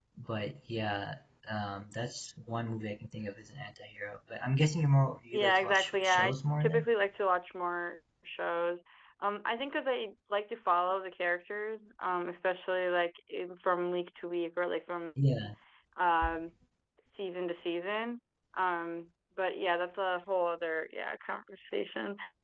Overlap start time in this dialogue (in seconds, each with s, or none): 5.3 s